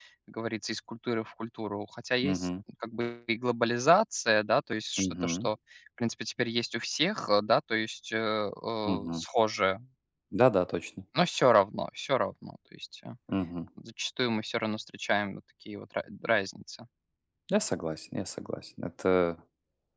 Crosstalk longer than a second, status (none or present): none